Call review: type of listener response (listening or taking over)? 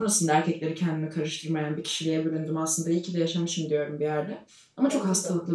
listening